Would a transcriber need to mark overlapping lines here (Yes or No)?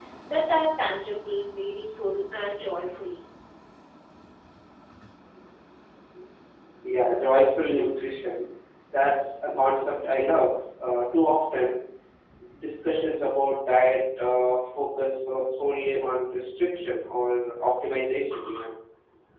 No